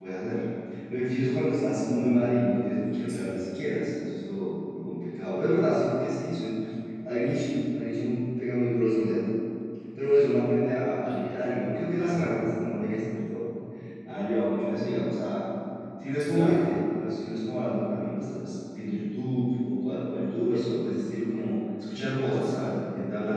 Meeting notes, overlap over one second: none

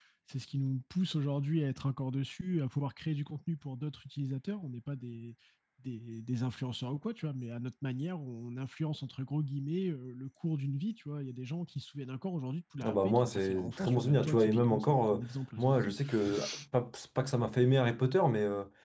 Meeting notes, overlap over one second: present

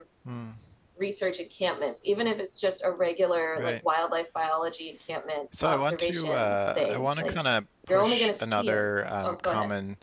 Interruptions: present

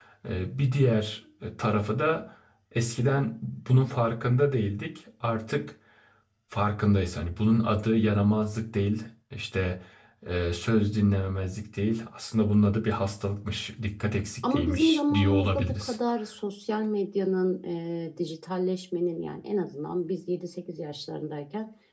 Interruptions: present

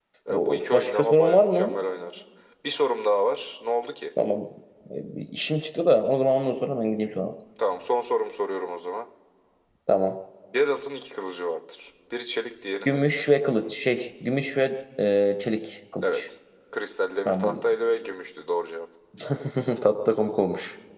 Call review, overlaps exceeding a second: present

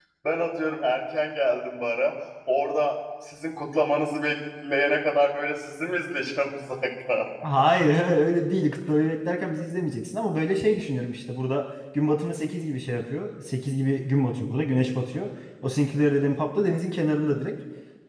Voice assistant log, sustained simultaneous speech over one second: none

